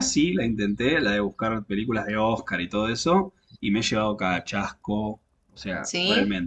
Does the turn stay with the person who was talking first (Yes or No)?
Yes